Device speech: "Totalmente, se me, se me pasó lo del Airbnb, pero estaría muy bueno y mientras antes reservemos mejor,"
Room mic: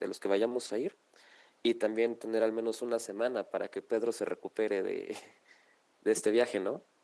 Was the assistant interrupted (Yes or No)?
Yes